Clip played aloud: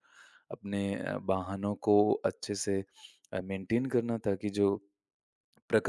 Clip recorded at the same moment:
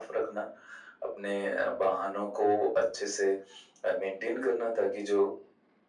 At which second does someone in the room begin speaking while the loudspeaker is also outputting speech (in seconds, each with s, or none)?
none